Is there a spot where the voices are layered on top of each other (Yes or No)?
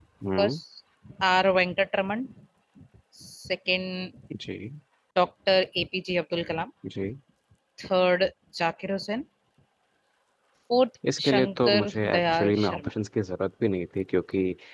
Yes